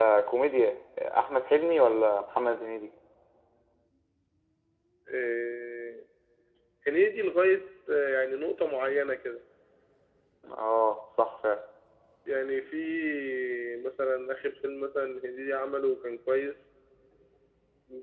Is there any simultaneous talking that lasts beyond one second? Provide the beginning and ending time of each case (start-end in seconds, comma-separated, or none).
none